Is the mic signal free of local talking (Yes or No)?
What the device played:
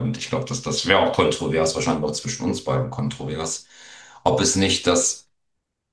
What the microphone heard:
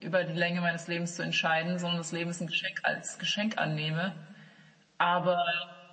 No